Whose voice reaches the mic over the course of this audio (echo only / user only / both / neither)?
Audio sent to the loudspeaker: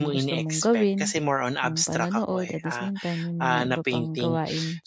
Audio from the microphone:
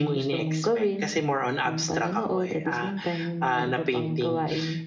echo only